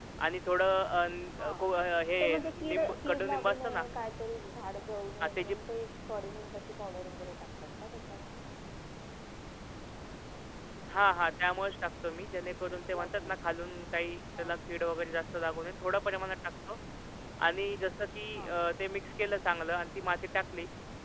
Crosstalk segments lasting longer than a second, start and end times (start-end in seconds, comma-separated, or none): 2.2-3.8